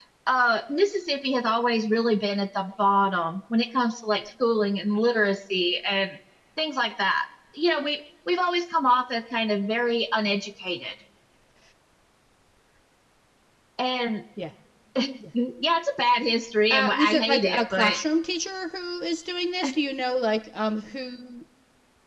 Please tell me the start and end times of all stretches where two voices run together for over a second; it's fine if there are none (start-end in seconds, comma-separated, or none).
16.7-18.0